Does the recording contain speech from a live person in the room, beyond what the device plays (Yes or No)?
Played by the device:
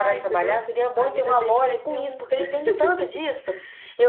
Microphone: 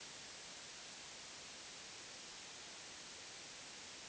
No